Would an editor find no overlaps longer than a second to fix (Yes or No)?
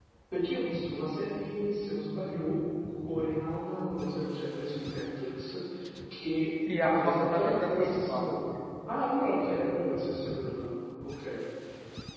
No